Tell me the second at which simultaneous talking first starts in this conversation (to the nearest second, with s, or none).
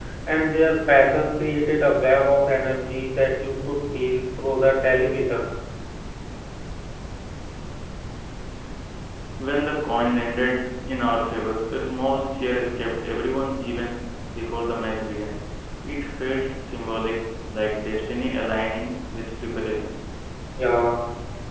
none